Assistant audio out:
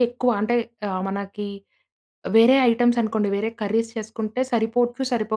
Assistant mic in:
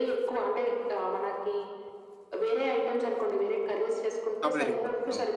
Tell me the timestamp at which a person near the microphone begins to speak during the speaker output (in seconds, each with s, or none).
4.4 s